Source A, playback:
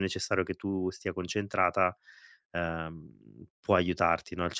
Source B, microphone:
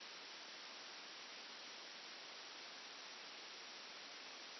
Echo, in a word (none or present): none